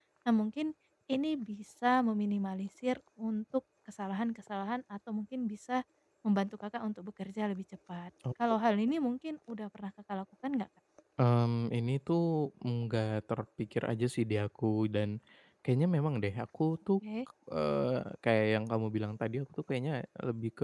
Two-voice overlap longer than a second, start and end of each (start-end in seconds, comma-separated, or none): none